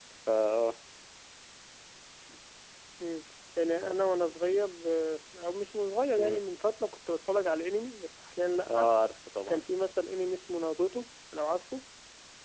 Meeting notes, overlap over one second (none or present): none